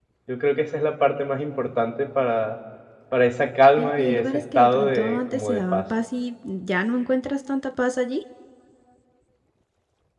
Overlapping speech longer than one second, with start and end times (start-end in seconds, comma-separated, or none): 3.8-5.8